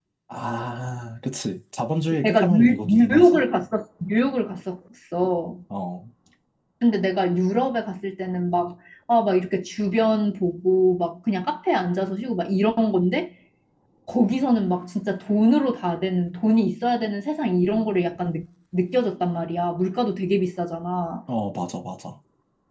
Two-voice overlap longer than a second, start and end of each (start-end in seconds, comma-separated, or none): 2.2-3.5